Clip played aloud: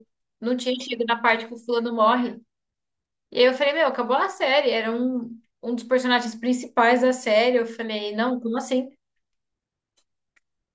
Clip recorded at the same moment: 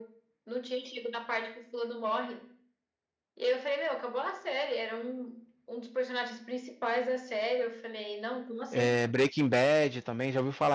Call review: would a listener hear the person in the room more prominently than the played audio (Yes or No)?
Yes